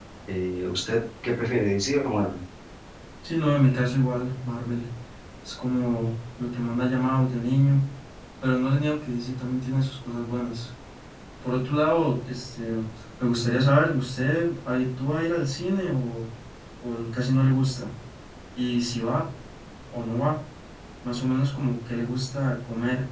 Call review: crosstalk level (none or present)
none